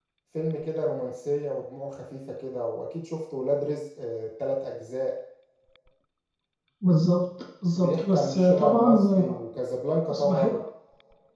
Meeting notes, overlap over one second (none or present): present